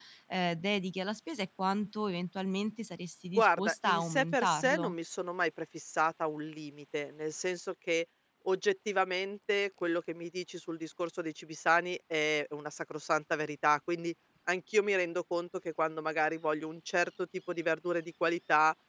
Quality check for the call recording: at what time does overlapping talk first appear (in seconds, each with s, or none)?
3.4 s